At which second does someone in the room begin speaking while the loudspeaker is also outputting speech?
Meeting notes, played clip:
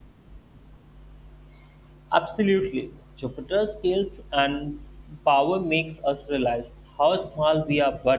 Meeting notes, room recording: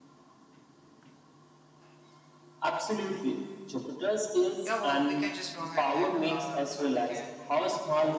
4.6 s

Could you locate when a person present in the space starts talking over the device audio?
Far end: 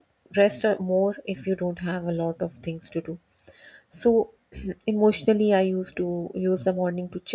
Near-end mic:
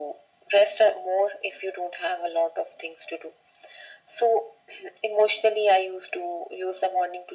none

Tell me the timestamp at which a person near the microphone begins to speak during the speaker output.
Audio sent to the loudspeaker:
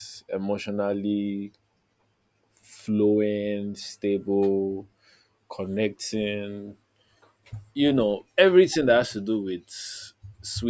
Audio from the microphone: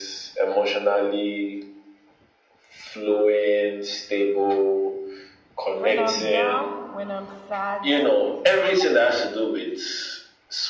5.8 s

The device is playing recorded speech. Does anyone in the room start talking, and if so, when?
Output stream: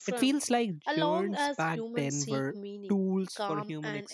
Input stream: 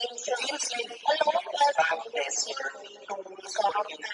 none

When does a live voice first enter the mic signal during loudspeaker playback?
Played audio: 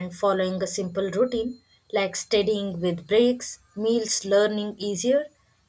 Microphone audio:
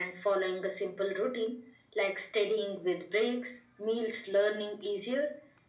none

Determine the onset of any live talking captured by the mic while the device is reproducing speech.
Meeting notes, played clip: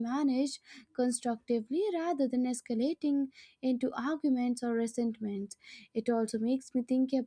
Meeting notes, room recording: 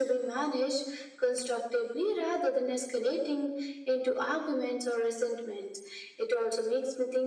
none

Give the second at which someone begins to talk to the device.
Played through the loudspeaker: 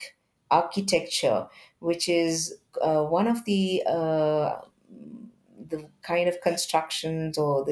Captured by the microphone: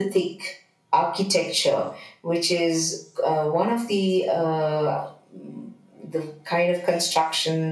none

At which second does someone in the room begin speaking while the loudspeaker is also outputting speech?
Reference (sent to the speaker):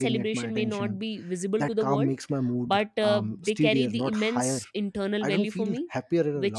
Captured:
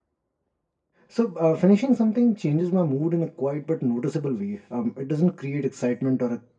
1.1 s

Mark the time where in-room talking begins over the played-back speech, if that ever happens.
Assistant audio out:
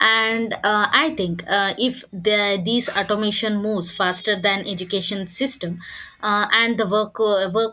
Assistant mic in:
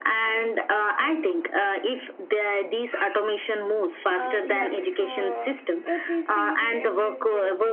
4.1 s

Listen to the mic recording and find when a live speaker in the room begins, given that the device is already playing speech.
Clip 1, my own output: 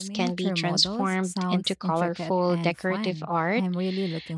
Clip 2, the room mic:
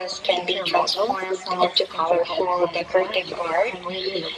none

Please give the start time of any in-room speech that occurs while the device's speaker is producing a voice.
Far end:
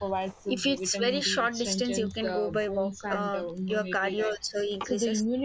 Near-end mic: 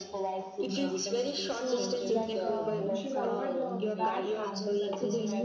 0.6 s

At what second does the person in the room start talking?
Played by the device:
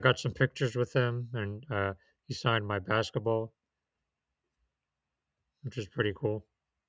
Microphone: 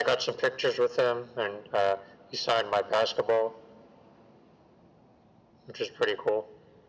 none

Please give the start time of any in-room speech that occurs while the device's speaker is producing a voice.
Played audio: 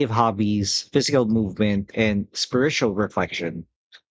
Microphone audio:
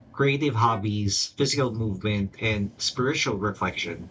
none

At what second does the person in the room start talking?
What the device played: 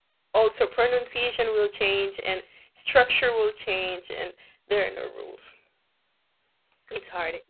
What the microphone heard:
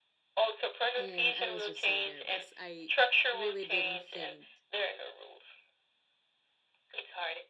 0.9 s

